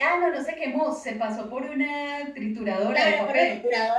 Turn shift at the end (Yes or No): Yes